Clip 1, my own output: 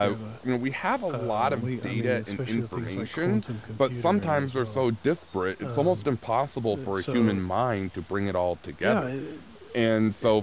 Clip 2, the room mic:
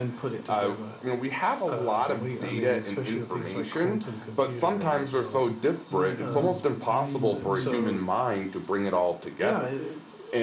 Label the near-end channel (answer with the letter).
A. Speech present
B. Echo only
A